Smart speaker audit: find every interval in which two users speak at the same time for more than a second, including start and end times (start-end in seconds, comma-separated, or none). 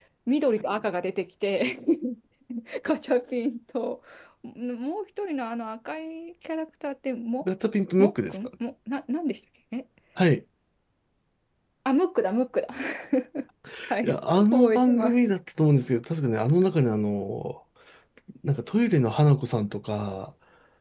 14.0-15.2